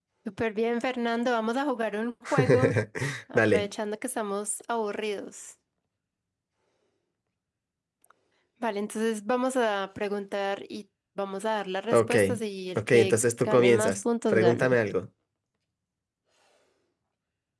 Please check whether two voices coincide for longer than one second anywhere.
Yes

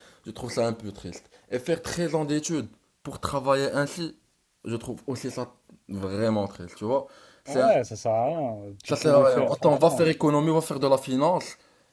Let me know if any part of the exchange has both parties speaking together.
Yes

